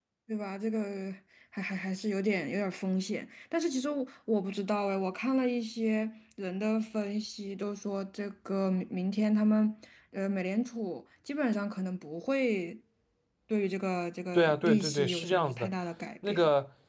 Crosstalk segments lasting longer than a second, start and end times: 14.3-15.7

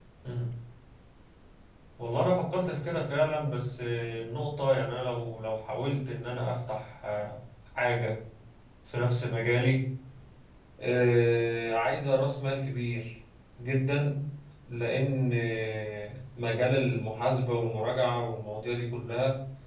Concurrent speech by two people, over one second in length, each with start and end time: none

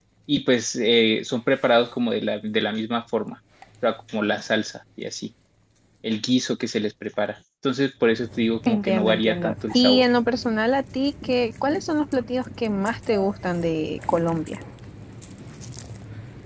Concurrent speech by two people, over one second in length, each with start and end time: 8.7-10.1

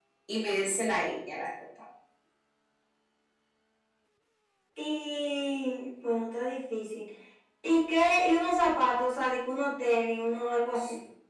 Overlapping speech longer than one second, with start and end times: none

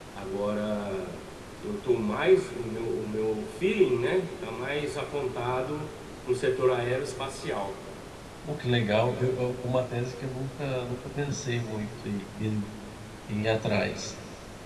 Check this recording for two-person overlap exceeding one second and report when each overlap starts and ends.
none

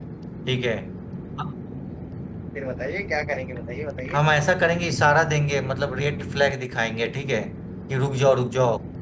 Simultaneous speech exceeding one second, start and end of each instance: none

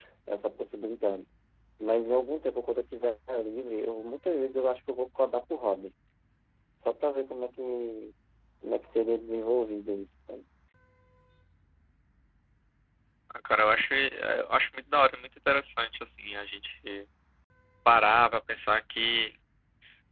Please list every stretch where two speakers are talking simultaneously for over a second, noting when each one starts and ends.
none

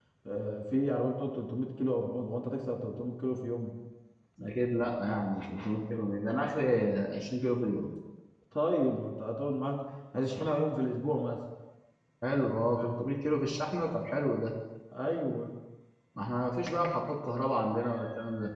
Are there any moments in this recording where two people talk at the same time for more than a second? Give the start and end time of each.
none

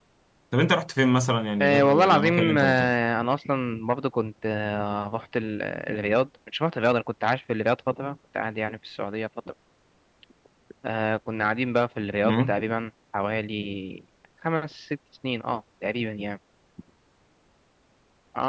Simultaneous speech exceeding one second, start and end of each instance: 1.6-2.9

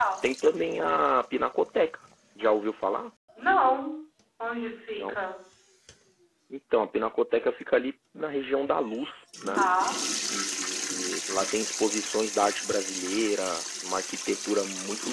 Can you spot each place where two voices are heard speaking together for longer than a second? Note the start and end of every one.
none

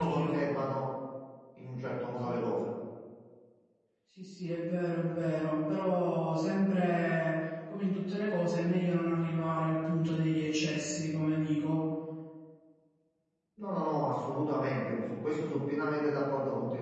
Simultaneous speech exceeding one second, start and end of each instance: none

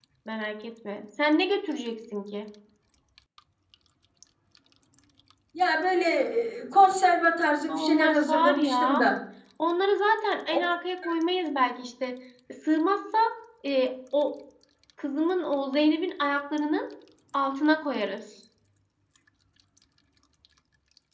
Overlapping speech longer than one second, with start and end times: 7.7-9.0

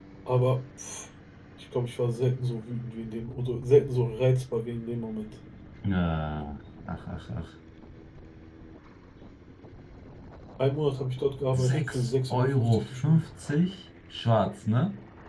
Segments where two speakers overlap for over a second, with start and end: 11.5-13.3

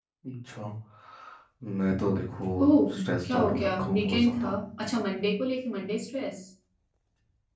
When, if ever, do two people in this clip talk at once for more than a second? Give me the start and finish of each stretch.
3.2-4.5

